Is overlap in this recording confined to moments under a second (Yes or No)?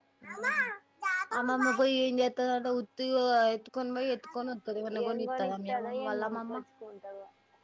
No